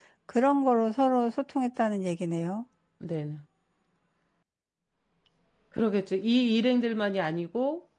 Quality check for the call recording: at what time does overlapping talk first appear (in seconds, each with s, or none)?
none